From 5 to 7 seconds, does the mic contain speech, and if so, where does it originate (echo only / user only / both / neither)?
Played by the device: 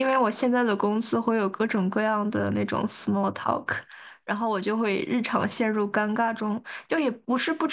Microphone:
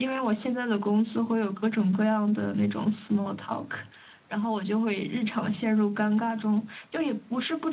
echo only